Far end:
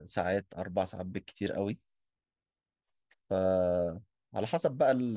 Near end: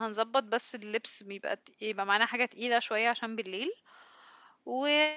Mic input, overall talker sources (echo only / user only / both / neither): user only